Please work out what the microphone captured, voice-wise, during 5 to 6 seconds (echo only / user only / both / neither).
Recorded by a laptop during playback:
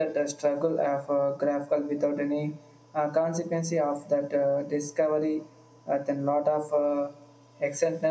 echo only